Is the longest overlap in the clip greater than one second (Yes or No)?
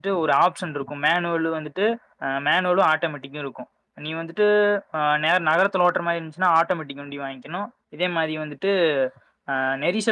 No